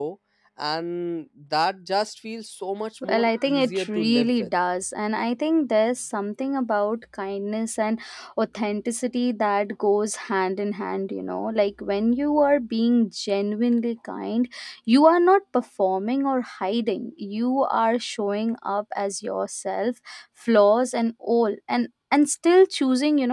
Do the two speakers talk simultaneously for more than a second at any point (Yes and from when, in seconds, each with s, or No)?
Yes, from 3.0 s